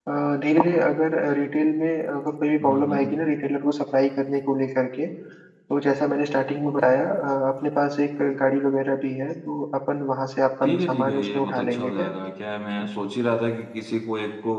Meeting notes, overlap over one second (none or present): present